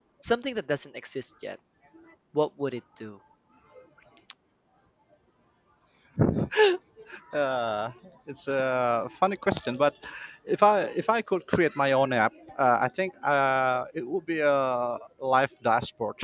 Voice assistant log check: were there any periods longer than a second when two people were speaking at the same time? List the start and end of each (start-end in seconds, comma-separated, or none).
none